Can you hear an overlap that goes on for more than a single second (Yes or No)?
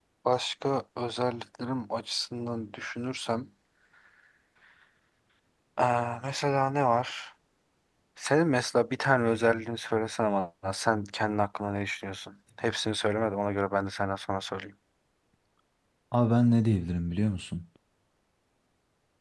No